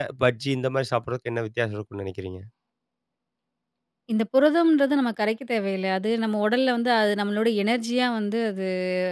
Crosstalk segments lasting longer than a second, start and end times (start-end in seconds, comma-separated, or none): none